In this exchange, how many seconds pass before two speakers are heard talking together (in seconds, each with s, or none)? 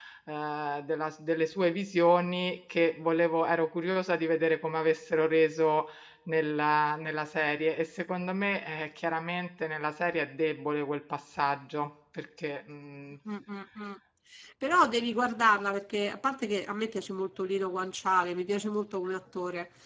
none